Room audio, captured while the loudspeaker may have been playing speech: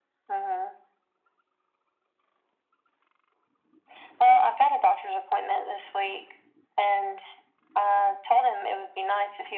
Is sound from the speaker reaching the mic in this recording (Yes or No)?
Yes